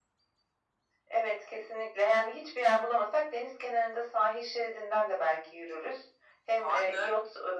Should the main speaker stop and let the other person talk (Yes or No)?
No